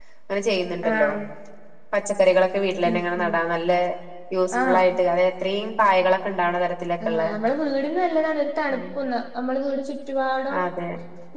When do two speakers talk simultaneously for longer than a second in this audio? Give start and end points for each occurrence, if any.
none

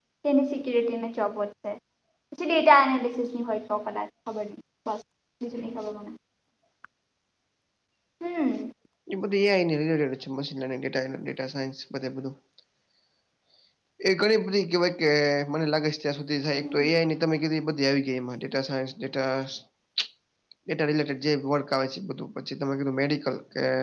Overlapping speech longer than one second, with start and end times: none

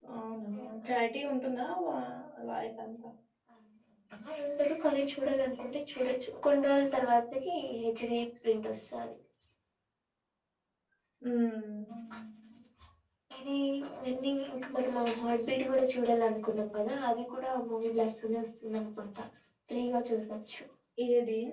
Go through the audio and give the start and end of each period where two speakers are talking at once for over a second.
none

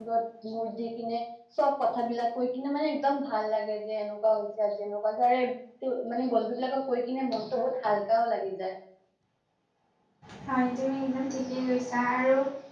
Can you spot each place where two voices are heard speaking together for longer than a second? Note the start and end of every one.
none

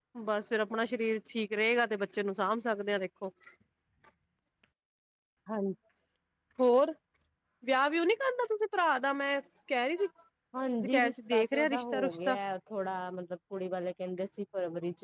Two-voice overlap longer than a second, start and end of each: 10.8-12.4

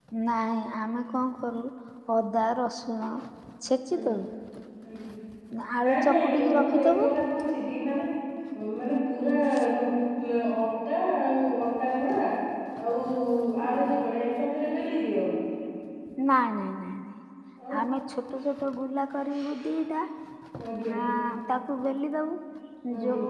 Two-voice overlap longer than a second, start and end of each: 5.8-7.0

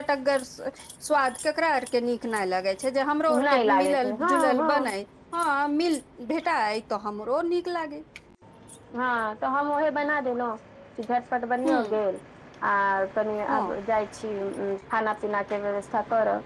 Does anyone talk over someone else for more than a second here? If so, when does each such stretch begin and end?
3.3-4.9

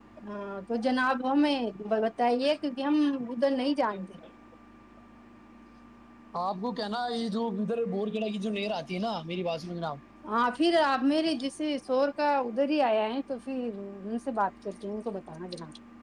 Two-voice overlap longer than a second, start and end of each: none

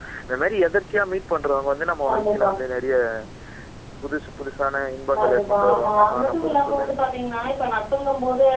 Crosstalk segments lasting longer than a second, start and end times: 5.1-6.8

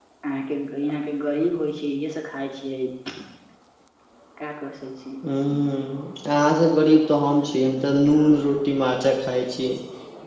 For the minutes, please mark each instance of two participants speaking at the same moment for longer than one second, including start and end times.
none

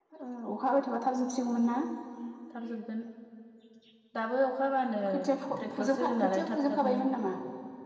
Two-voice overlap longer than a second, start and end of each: 5.8-7.0

